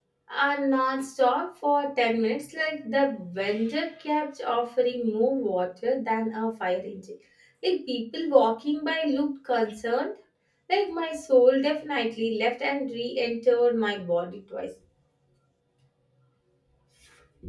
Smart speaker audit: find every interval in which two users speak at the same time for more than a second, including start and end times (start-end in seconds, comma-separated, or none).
none